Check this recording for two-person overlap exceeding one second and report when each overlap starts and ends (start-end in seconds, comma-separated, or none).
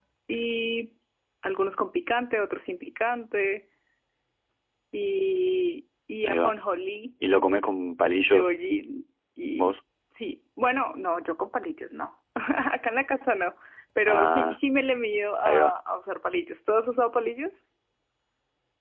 none